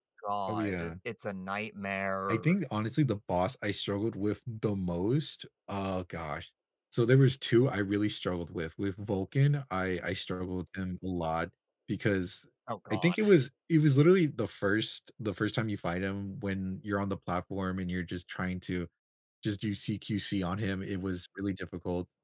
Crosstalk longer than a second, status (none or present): none